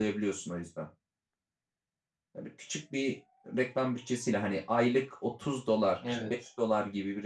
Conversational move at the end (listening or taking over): listening